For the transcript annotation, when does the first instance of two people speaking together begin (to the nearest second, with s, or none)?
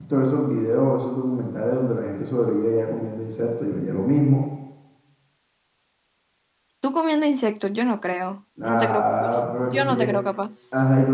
9 s